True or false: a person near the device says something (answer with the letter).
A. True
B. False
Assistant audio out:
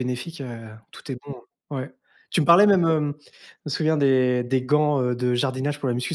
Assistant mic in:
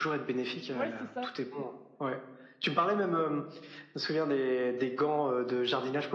A